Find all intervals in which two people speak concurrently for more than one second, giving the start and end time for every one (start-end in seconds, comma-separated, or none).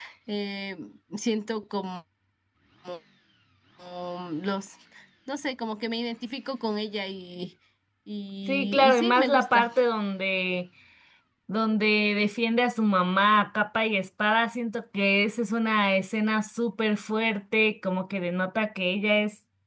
8.5-9.7